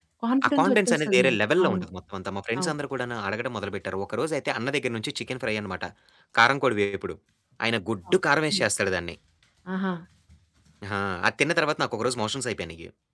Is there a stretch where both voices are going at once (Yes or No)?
Yes